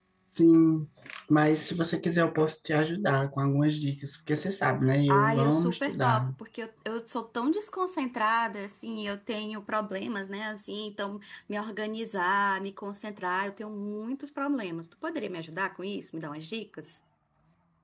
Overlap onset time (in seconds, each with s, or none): 5.1 s